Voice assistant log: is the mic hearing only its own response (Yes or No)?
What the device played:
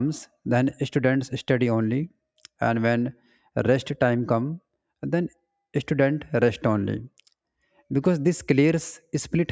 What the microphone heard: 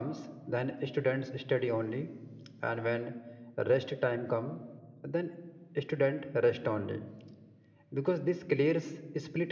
Yes